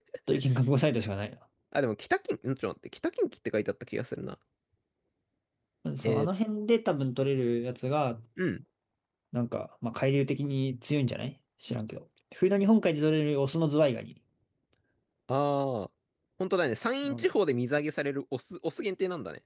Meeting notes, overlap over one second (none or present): none